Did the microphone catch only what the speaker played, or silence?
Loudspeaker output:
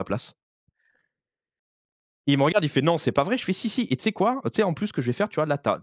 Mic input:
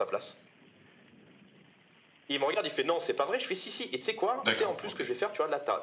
No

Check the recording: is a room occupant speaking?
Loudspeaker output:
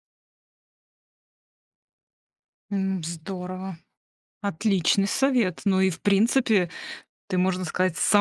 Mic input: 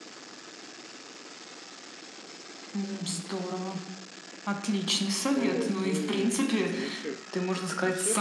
Yes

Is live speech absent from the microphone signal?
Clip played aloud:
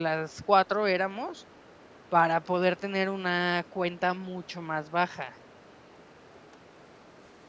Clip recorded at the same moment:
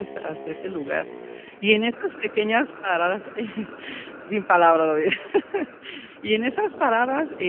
No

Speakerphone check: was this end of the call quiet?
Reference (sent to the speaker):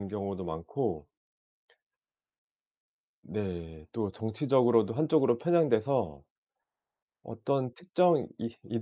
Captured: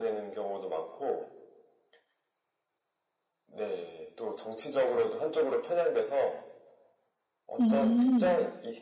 No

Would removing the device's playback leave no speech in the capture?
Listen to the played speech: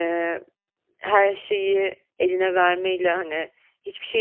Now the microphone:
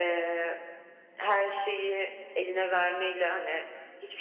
Yes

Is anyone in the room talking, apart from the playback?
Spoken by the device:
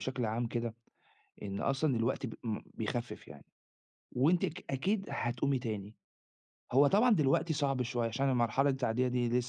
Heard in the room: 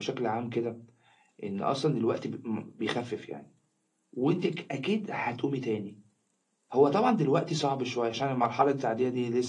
No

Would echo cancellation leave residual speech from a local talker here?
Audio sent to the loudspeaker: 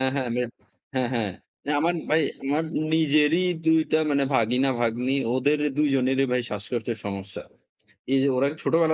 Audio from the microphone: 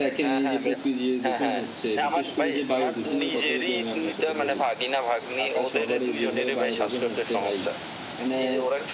Yes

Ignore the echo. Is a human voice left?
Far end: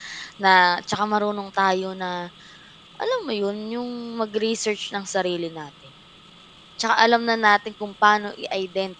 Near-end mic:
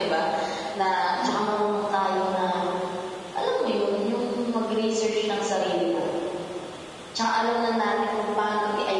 Yes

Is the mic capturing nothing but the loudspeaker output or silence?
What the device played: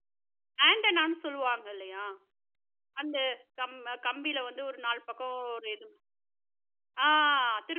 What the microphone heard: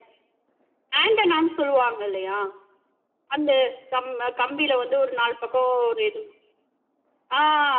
Yes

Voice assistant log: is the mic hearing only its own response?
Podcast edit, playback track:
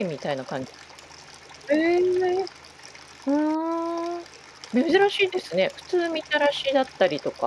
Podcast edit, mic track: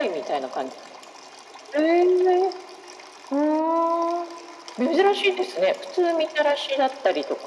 Yes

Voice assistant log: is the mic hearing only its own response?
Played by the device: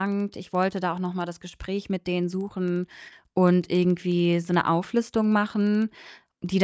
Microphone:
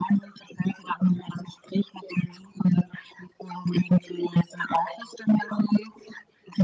Yes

